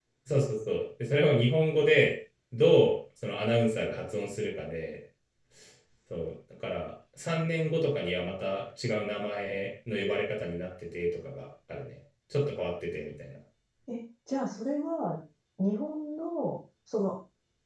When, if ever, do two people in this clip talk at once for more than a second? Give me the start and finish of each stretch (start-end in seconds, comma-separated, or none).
none